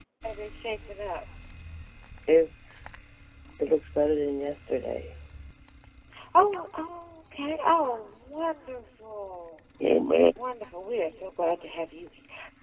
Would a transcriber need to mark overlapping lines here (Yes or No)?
No